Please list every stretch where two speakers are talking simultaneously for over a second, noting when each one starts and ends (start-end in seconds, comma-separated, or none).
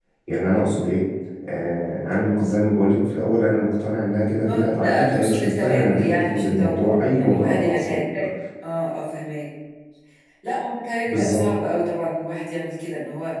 4.5-8.0